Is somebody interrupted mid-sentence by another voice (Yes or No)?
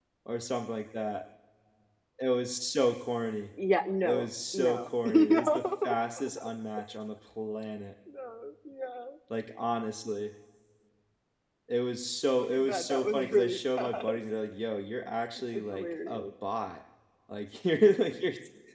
Yes